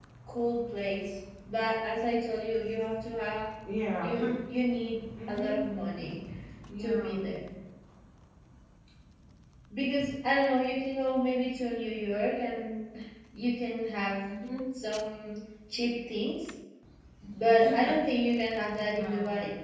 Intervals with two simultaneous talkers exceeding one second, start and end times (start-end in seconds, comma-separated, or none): none